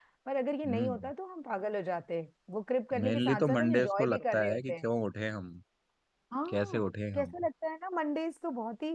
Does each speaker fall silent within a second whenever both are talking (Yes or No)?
No